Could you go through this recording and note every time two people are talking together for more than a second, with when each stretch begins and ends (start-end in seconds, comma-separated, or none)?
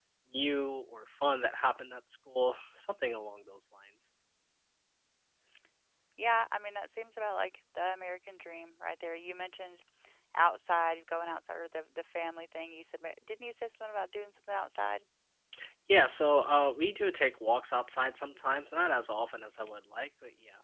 none